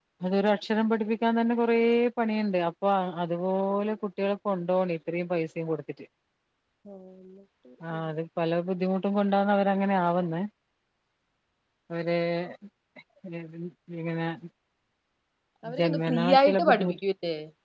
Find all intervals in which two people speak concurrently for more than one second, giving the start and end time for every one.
15.8-17.0

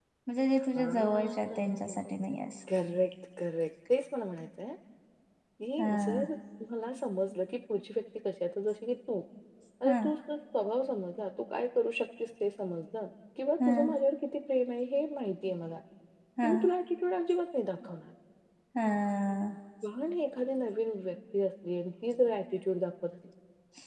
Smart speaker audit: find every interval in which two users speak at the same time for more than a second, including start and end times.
0.8-2.0

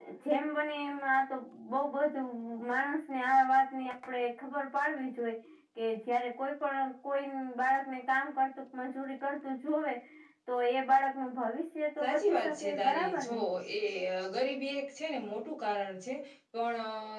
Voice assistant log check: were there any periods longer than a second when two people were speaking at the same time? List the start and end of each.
12.0-13.4

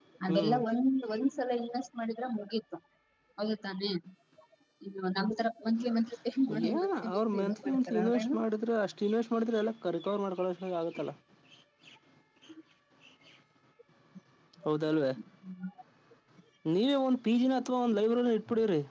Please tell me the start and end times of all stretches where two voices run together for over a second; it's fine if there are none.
6.7-8.3

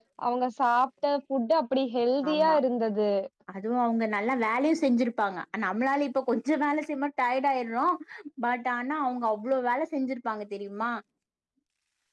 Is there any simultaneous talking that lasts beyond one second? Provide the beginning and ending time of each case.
none

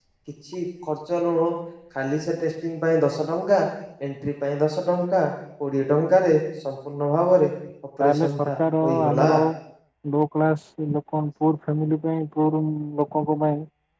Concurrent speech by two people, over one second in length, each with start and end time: 8.0-9.3

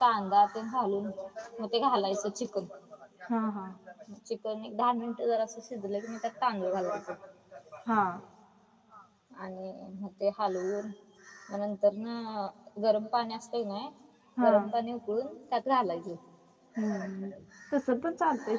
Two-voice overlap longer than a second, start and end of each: none

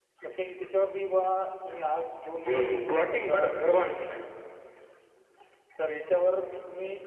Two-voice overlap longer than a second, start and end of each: 2.4-4.2

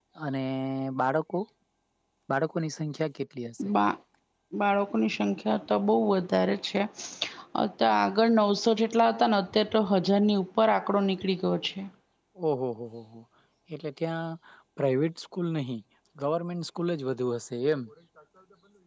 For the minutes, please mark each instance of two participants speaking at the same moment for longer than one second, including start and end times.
none

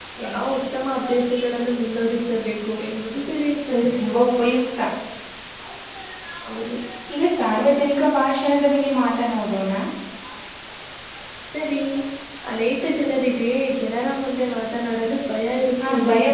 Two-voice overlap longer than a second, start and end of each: none

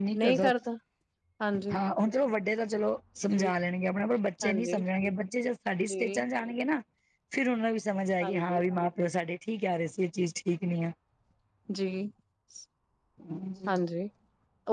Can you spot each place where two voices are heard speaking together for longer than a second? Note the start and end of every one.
none

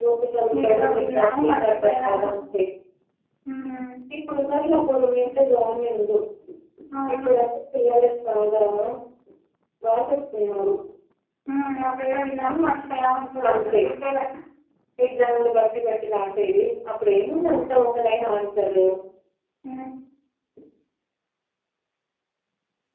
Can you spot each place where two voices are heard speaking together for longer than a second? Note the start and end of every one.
0.7-2.2

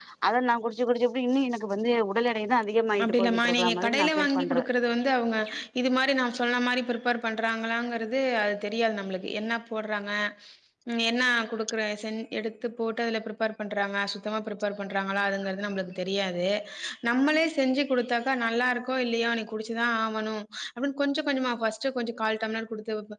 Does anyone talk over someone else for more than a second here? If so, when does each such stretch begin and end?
3.0-4.7

